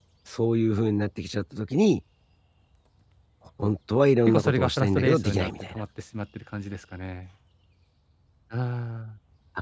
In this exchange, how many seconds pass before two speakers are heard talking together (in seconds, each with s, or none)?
4.3 s